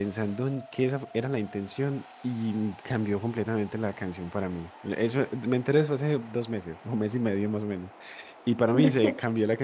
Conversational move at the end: listening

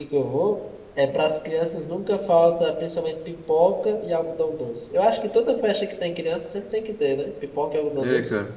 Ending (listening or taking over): taking over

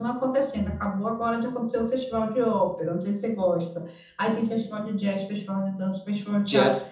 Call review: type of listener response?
listening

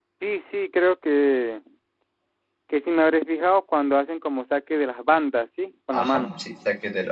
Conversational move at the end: taking over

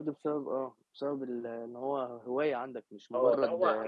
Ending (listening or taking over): taking over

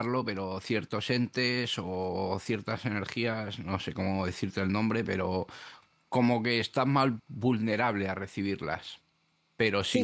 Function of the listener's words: listening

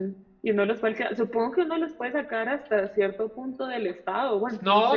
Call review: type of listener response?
taking over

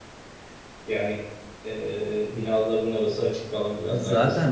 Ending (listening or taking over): taking over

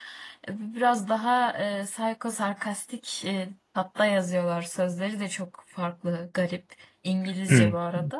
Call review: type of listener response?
taking over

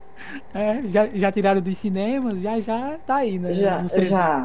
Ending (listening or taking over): taking over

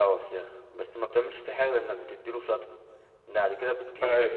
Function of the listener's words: listening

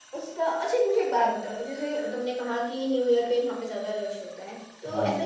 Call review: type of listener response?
listening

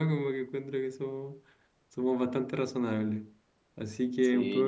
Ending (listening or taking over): taking over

